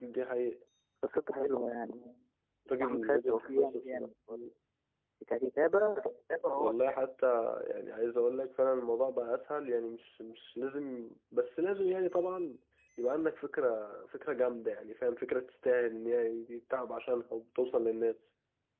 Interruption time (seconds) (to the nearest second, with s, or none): 3 s